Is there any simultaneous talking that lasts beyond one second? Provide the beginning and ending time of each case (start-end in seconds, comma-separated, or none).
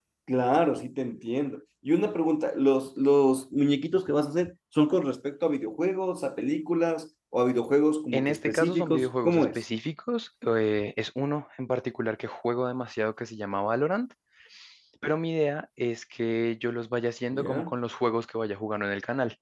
8.1-9.6